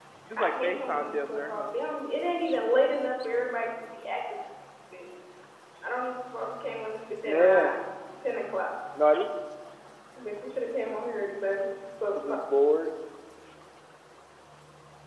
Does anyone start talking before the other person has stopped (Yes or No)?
Yes